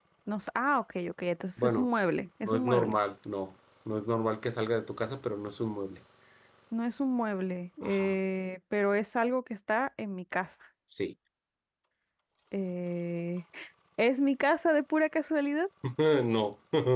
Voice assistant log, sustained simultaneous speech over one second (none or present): none